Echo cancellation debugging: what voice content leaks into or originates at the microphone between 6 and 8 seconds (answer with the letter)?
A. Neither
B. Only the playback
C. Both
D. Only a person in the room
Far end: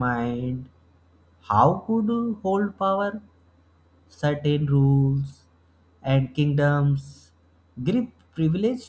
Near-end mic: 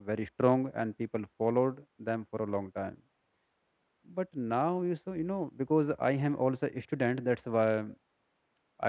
D